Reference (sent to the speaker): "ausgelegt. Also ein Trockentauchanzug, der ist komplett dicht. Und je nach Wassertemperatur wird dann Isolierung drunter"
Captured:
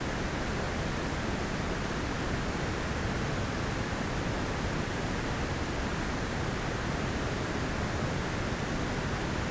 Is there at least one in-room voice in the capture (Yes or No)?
No